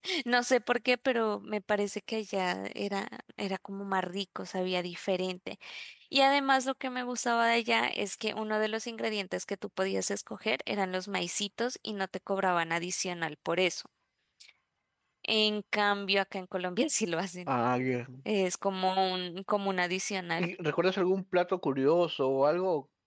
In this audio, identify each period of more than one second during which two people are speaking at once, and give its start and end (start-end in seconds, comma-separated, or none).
none